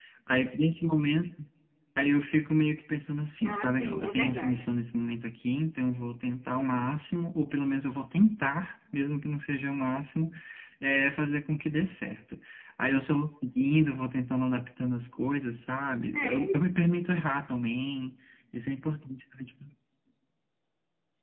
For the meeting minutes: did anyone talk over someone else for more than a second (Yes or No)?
Yes